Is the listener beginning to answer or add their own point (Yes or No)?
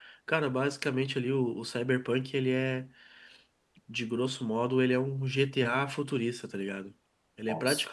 No